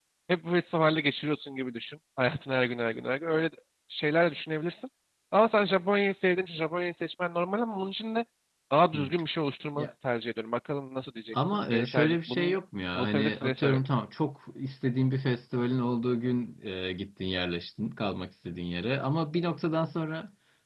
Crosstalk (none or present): present